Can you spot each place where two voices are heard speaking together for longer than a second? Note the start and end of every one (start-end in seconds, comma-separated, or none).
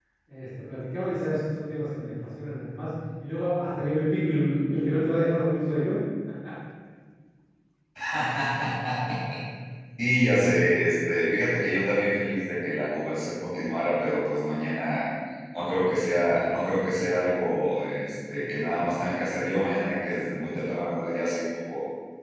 none